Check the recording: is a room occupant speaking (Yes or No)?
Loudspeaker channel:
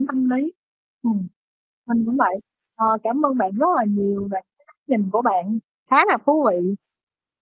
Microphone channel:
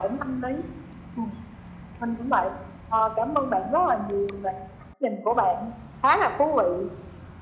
No